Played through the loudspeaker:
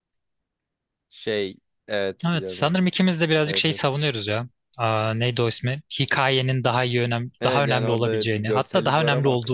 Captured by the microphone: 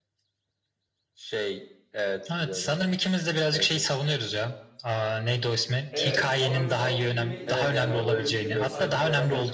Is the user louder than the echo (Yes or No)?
No